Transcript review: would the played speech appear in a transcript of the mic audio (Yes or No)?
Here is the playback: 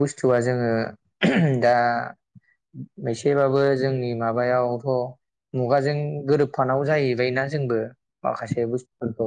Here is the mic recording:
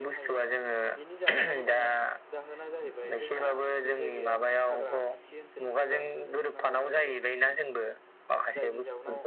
Yes